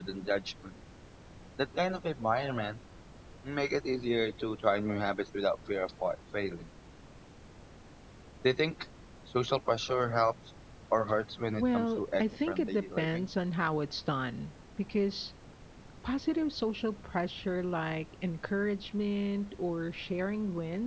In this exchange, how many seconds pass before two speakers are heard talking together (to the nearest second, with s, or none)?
12 s